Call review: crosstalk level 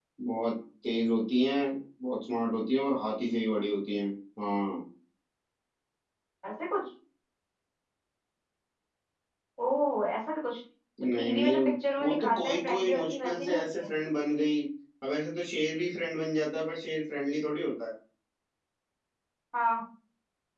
present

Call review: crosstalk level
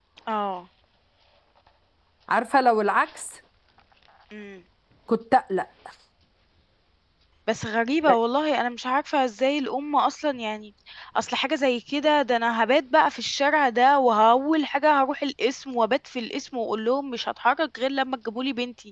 none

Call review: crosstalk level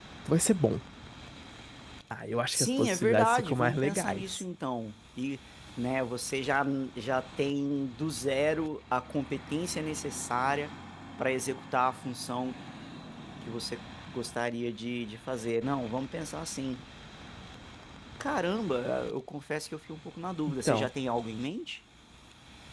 present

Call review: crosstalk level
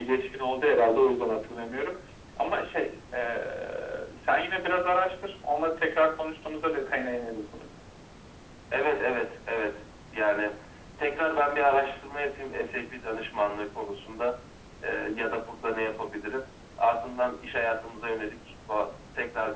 none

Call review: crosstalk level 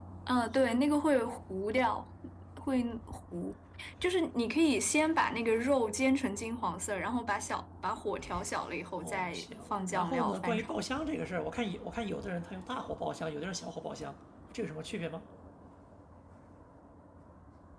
present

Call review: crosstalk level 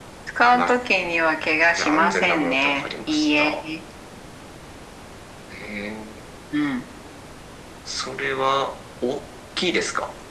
present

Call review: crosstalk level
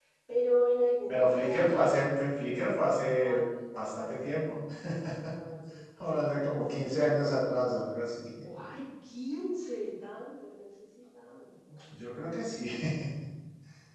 present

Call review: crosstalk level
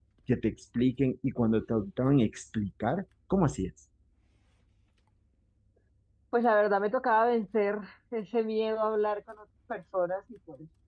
none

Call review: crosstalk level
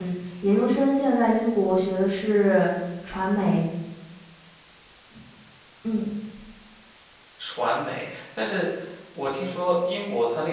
none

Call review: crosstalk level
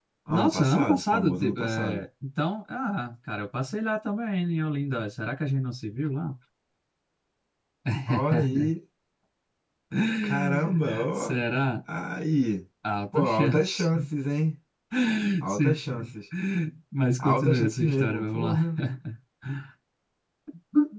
present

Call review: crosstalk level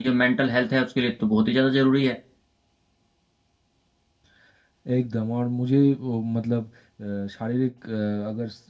none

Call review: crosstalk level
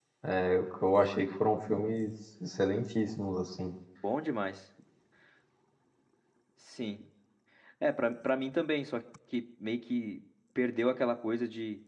none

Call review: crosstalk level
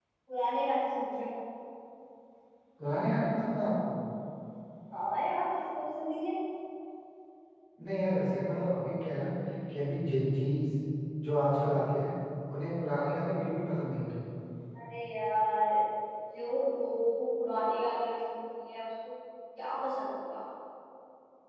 none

